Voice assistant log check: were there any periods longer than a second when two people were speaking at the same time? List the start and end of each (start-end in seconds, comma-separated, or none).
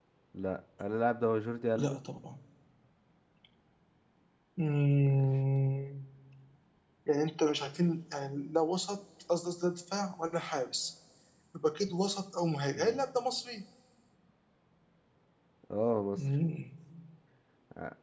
none